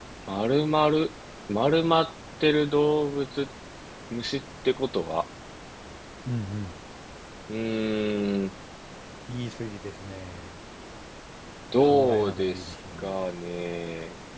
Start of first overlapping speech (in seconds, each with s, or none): 11.8 s